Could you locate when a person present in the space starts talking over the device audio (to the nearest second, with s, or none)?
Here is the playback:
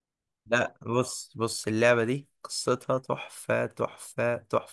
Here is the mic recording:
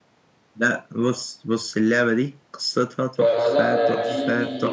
3 s